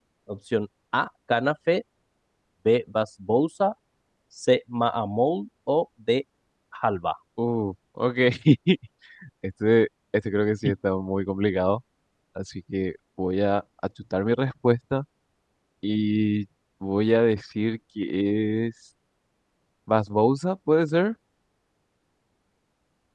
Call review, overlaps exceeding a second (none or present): none